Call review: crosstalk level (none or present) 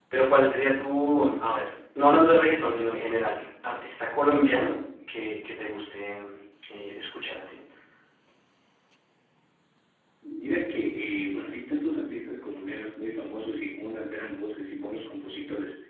none